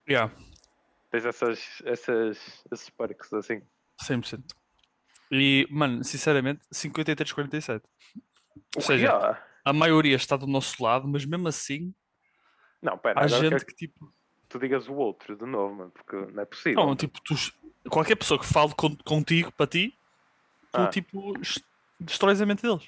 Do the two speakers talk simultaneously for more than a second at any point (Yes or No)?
No